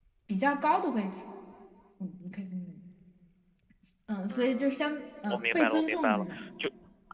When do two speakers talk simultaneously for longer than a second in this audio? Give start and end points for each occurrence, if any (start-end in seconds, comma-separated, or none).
4.3-6.4